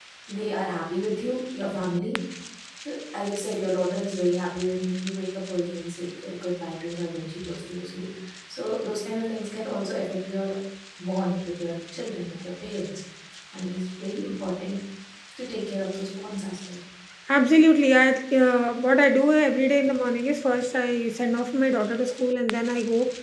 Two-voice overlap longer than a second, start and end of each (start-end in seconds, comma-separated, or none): none